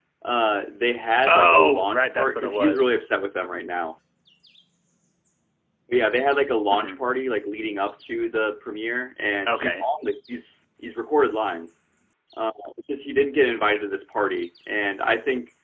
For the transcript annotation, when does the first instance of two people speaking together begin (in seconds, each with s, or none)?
1.3 s